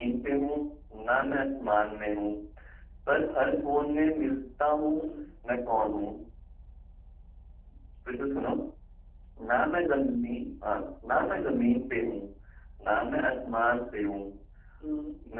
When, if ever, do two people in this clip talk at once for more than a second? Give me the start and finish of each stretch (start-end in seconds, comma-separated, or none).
none